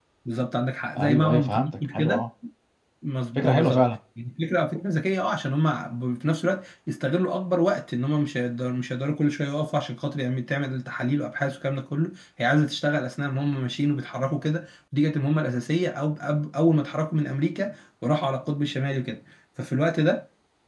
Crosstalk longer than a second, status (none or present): present